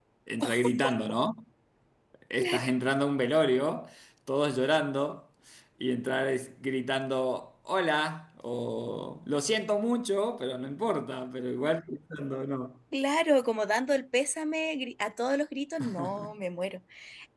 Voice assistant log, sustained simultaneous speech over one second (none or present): none